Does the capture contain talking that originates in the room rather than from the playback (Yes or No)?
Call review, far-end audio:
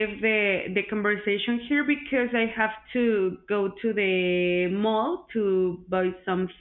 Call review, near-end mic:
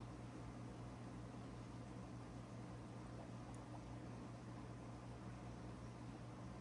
No